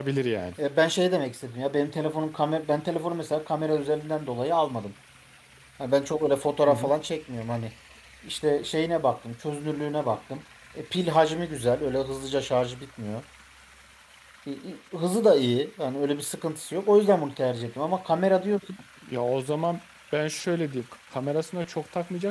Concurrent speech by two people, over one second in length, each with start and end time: none

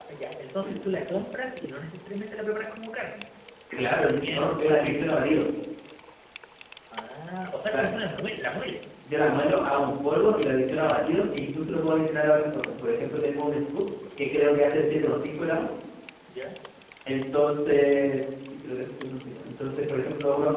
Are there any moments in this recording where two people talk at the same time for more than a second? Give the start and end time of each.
3.7-5.0

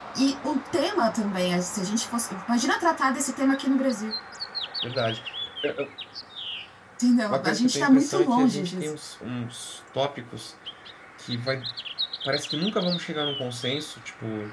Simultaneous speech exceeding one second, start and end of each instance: 7.3-8.9

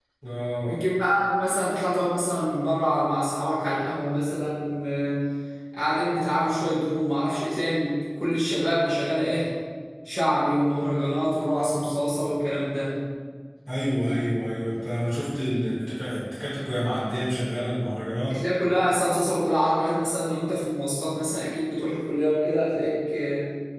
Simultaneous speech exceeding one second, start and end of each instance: none

